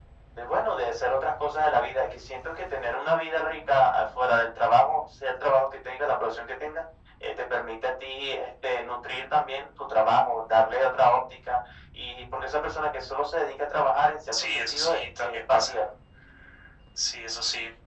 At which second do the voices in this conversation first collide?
14.3 s

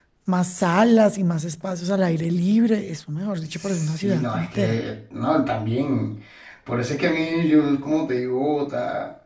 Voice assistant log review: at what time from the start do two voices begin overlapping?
3.6 s

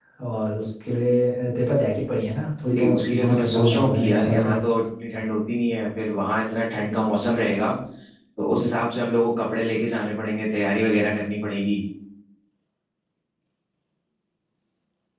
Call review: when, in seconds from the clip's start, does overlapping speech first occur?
2.8 s

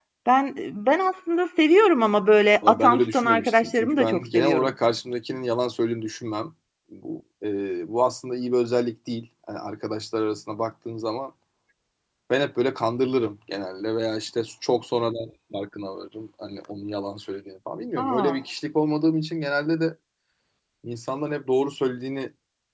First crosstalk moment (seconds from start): 2.7 s

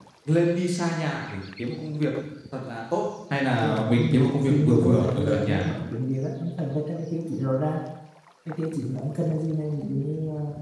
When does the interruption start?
3.6 s

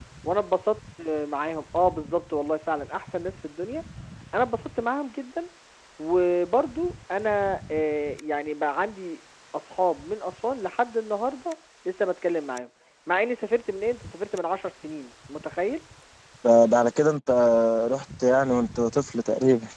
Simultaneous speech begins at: none

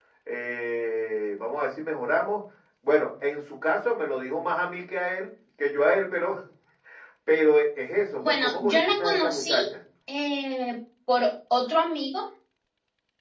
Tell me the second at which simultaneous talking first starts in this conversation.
8.2 s

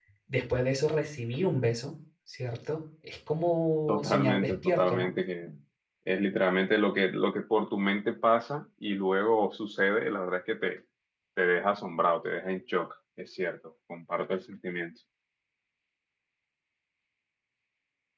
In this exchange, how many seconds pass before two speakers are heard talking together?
3.9 s

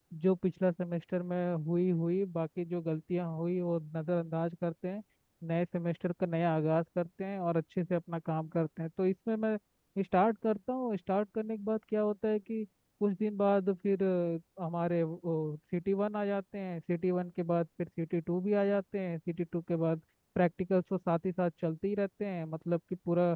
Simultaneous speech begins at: none

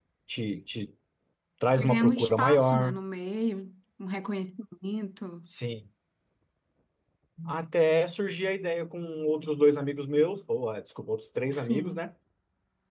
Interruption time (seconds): 1.8 s

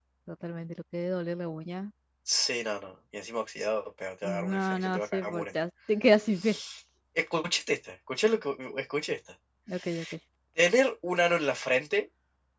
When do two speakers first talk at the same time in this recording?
4.2 s

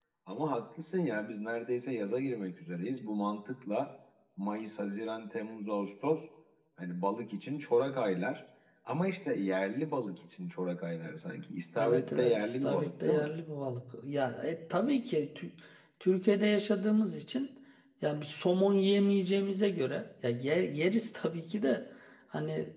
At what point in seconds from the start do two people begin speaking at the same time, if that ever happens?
11.8 s

